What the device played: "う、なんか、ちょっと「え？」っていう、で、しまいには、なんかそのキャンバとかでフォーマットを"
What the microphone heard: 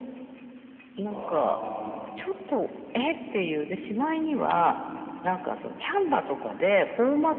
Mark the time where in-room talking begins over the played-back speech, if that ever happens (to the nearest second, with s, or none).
1 s